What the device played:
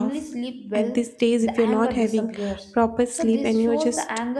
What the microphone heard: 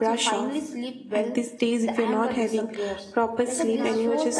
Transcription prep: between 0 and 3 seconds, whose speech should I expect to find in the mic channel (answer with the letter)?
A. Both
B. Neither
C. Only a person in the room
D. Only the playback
D